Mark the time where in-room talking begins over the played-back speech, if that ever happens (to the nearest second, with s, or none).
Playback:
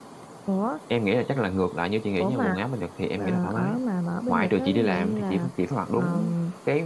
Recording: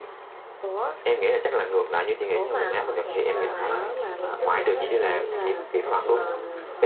3 s